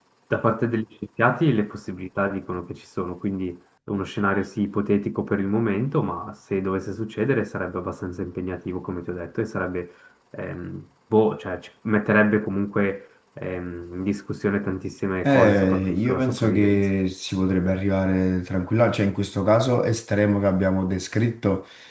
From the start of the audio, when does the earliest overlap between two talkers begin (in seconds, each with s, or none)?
15.2 s